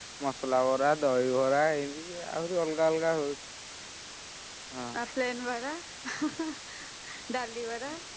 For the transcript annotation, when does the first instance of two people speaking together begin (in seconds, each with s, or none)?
none